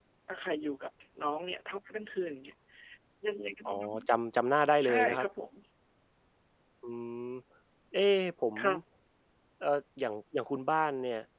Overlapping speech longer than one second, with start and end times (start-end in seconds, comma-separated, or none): none